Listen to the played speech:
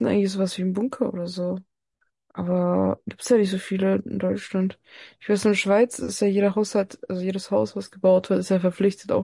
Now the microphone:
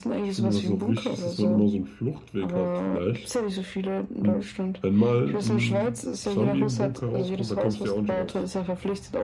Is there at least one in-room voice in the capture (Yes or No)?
Yes